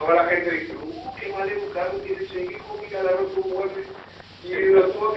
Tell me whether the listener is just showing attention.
Yes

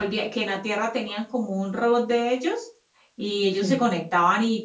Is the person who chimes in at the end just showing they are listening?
Yes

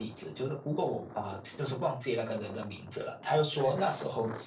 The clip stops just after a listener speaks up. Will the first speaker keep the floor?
Yes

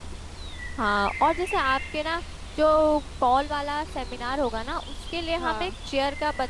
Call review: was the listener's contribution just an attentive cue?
Yes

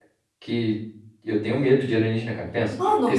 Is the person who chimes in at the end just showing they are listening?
Yes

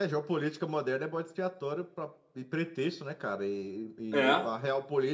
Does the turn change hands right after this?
No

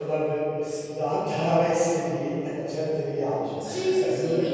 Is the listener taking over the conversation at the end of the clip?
Yes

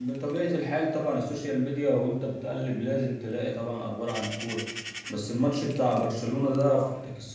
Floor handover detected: No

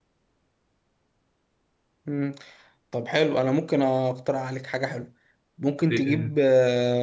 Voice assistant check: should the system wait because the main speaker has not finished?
Yes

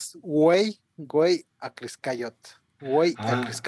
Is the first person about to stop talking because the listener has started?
Yes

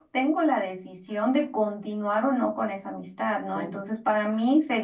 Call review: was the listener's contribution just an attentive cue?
Yes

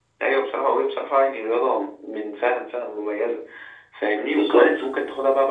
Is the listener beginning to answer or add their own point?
No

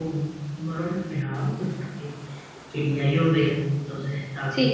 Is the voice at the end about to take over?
Yes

